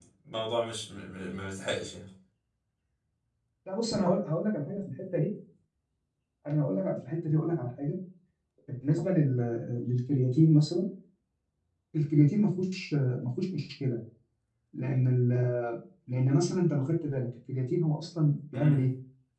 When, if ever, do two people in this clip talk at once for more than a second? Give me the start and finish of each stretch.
none

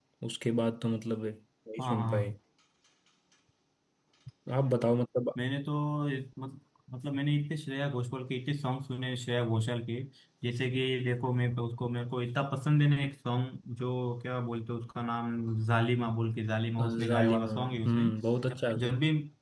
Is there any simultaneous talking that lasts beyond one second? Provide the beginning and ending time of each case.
16.8-18.1

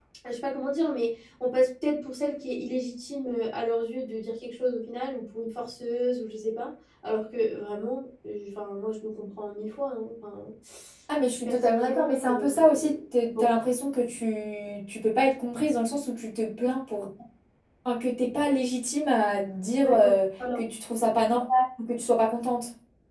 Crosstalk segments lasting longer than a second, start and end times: 11.4-12.8

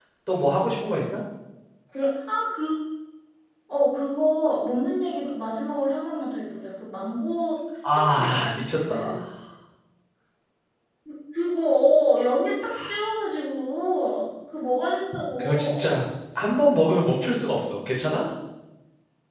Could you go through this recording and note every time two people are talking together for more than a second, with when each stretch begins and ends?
7.9-9.2

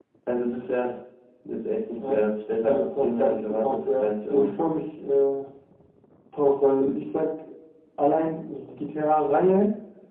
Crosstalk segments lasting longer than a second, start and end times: 2.6-4.5

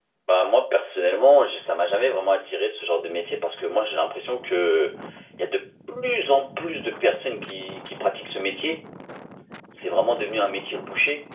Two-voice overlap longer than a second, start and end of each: none

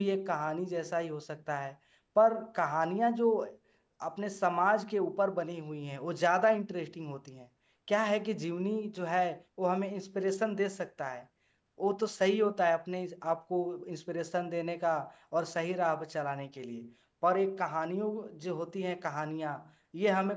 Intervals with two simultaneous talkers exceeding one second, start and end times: none

